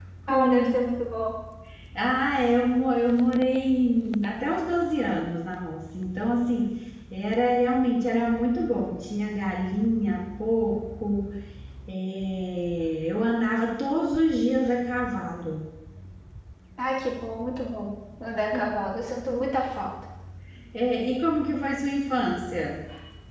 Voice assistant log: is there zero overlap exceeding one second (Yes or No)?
Yes